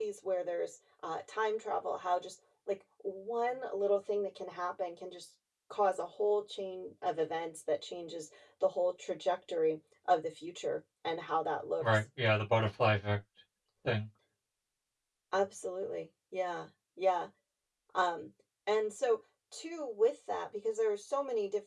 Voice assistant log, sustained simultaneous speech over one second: none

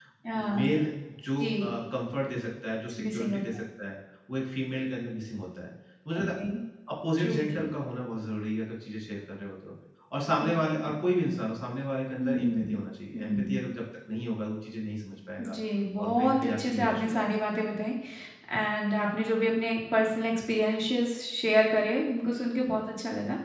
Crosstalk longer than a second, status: present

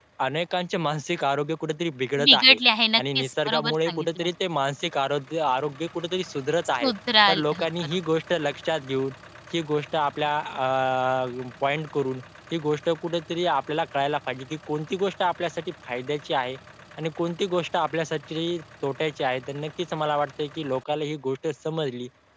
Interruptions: present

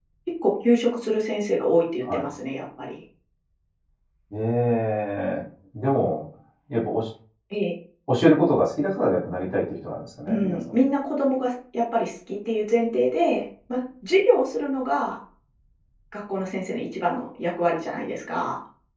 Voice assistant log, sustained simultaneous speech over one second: none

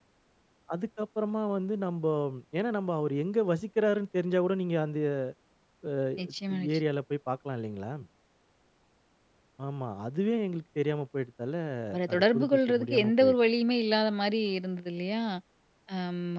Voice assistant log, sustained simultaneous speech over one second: present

